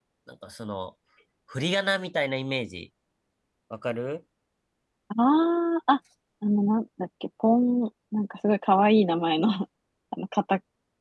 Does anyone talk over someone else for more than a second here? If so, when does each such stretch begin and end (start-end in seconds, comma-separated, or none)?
none